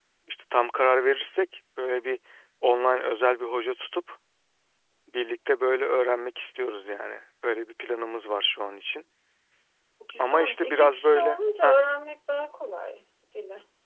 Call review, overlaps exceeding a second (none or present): present